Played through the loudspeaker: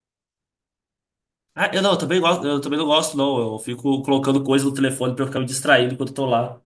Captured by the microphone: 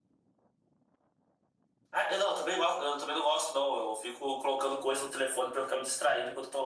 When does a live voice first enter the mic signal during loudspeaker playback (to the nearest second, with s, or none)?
none